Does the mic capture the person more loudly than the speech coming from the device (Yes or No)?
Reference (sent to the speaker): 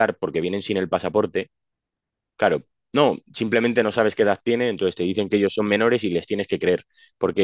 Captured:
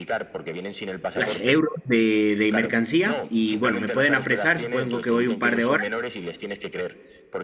Yes